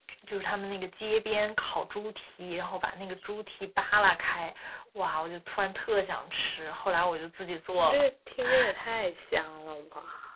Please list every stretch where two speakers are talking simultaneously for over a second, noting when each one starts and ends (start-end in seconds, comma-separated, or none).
none